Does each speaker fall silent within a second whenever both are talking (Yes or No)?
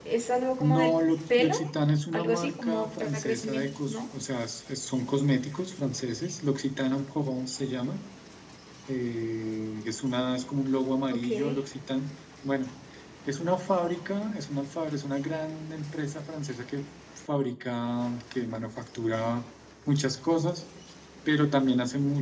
No